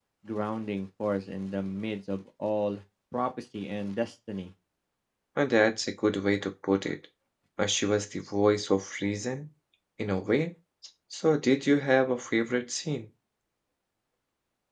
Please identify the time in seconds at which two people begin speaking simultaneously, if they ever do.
none

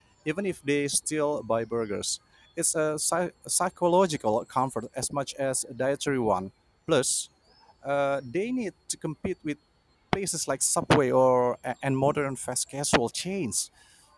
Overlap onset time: none

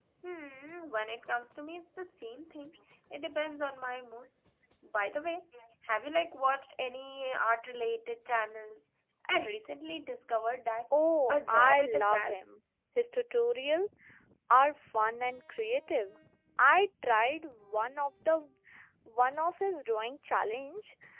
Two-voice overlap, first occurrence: 11.3 s

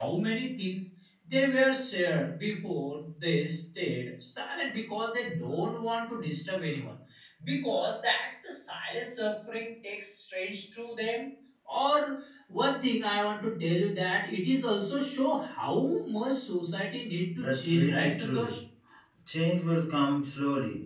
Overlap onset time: 17.4 s

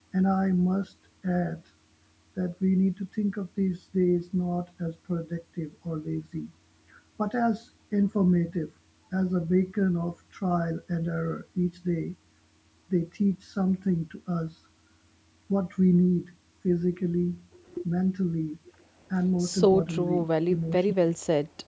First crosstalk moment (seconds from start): 19.4 s

